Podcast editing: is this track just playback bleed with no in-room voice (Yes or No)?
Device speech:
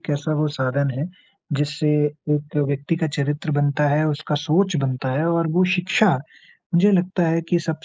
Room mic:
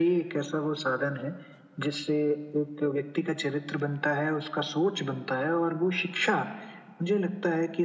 Yes